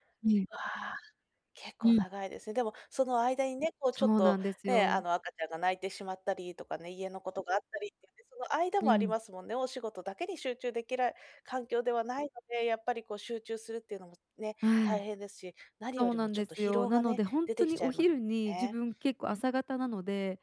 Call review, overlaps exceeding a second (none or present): present